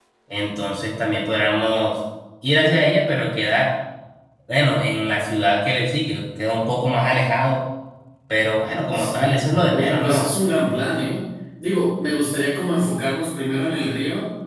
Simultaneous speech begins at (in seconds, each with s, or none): 8.9 s